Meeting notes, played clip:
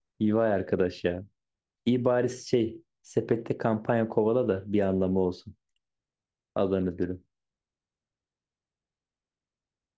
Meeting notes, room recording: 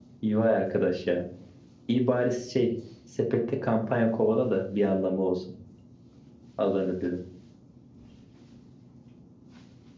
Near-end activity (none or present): none